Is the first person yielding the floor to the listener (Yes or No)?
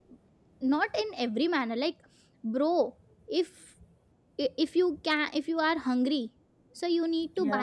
No